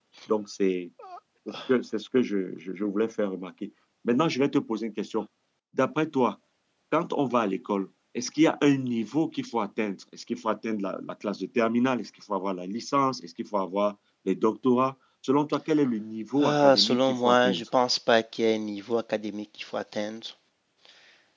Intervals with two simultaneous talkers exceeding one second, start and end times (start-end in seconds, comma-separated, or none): 16.4-17.6